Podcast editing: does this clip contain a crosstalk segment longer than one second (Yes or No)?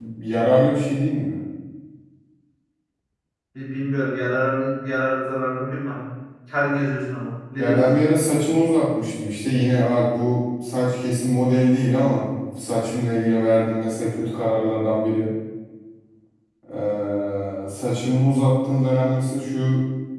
No